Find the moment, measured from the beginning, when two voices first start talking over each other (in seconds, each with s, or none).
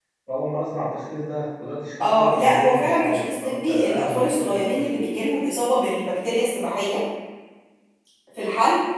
2.0 s